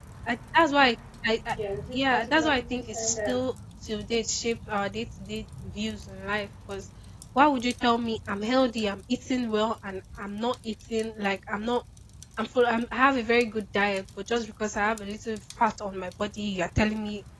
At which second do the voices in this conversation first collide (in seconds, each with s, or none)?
1.9 s